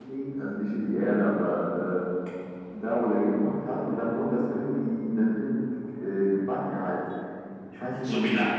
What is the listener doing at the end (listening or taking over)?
taking over